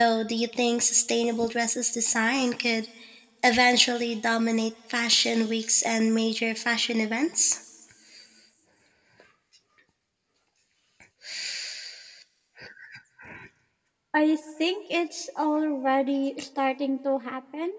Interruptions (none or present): none